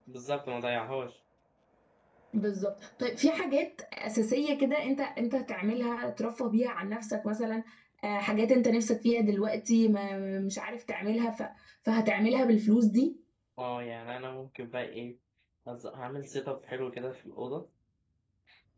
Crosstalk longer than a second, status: none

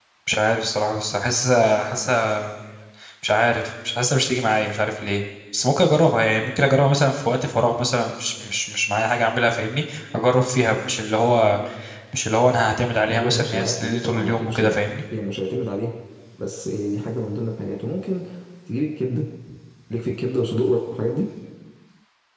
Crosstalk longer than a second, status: present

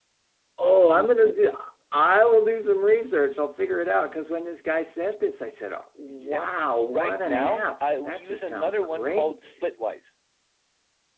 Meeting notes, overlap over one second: present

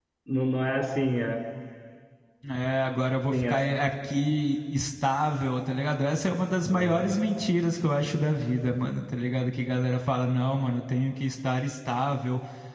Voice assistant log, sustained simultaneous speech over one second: none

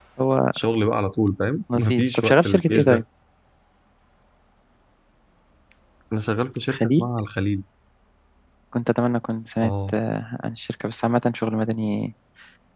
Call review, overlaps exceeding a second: present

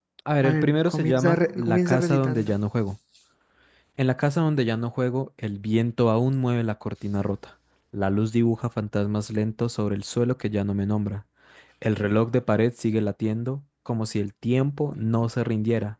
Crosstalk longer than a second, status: present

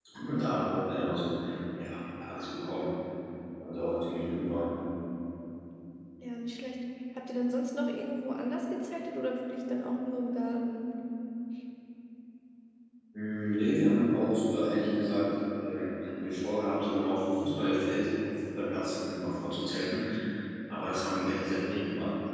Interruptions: none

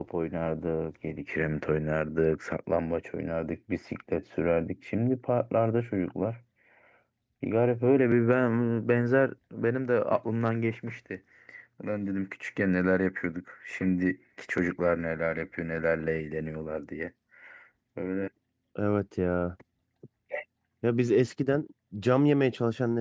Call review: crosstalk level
none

